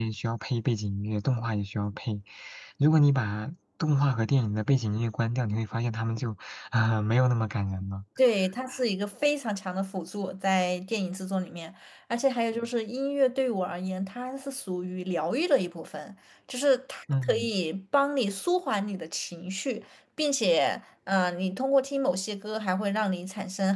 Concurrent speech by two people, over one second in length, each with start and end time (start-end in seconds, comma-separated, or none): none